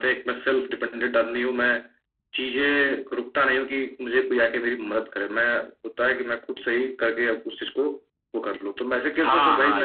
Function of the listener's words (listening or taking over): taking over